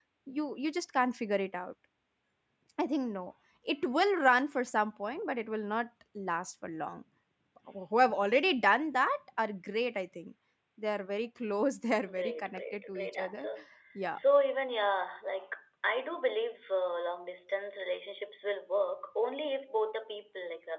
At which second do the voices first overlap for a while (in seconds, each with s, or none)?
12.0 s